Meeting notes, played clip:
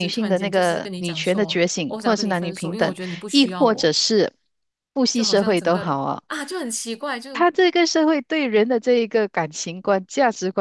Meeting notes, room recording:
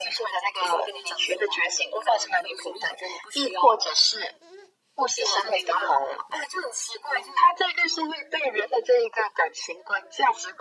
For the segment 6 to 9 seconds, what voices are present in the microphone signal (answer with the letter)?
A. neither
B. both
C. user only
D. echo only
D